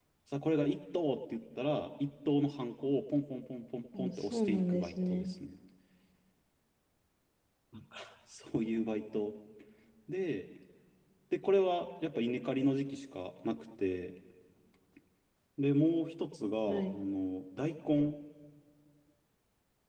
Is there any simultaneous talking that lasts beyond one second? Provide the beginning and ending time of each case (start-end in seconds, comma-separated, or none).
4.0-5.3